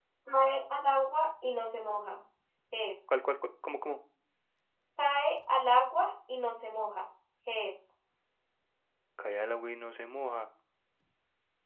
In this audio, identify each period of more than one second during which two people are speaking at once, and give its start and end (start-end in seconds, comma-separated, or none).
none